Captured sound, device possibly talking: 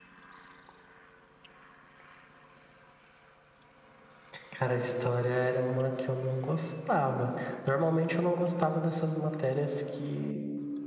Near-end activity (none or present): none